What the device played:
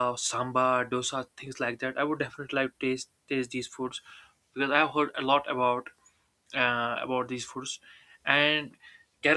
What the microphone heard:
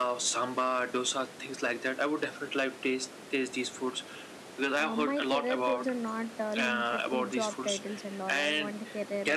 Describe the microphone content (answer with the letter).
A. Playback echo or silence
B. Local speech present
B